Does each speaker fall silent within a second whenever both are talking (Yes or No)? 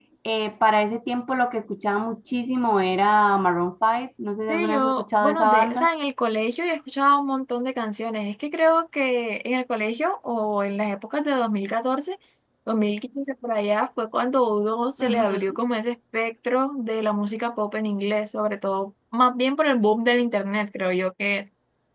No